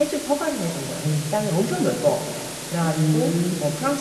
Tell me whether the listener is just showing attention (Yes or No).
Yes